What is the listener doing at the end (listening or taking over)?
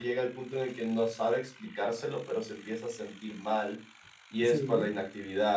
listening